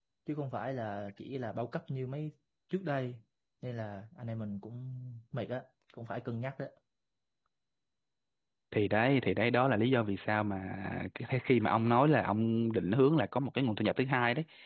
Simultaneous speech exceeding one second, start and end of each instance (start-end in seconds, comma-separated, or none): none